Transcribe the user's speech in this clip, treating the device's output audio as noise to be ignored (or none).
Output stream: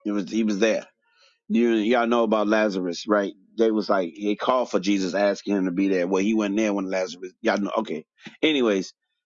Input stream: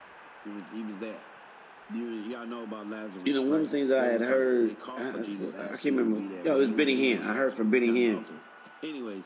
You know, one of the things I had heard, I, who- I can't remember. You know, it was Benny Hinn. I heard from Benny Hinn